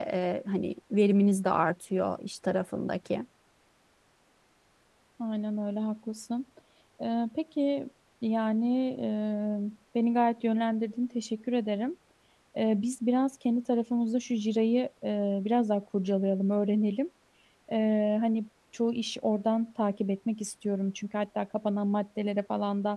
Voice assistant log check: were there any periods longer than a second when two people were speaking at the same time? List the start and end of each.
none

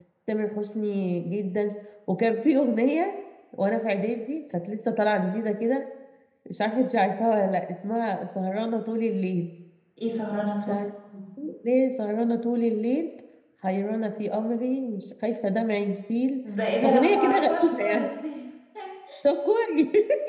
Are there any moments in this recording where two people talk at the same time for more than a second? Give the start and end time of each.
16.8-18.1

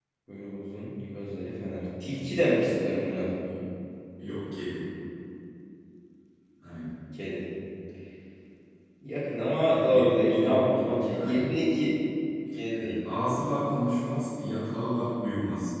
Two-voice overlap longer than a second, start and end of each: 9.9-11.6

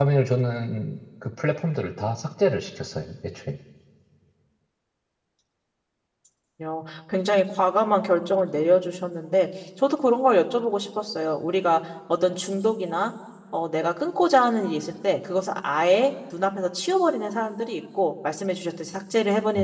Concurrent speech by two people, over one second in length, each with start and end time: none

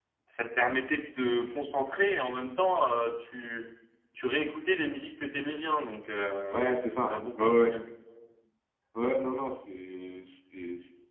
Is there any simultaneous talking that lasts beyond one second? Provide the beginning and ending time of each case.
6.5-7.7

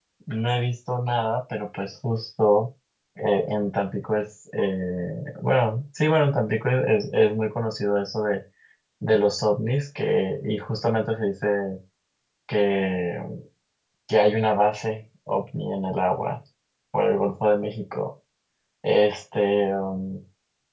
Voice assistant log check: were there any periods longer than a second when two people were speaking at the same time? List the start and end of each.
none

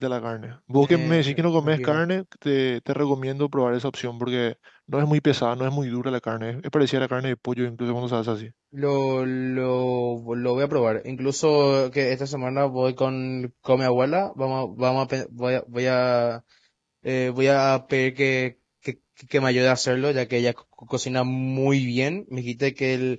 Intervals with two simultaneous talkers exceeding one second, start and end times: 0.7-2.0

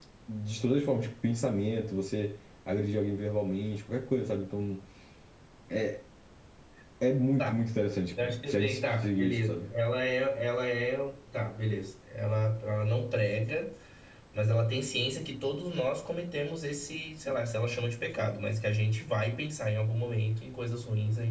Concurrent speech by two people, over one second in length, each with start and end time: 8.2-9.7

